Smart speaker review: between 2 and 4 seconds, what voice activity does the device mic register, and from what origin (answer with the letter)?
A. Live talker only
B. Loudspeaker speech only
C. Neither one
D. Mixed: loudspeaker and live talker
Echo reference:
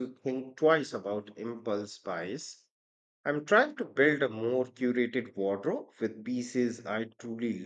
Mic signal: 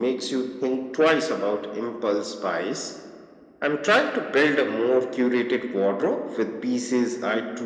B